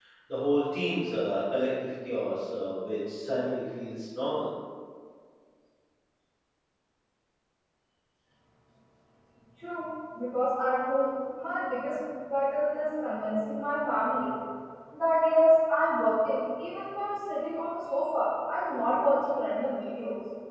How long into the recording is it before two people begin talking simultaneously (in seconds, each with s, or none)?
none